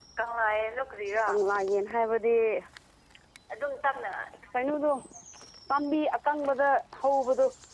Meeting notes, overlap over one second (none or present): none